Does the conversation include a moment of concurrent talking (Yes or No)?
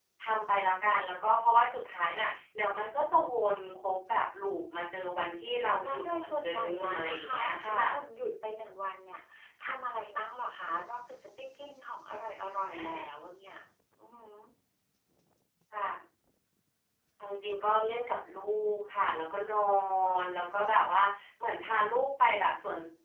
Yes